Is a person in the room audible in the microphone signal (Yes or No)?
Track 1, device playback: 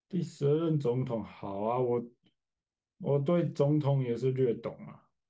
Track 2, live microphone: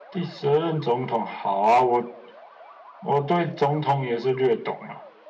No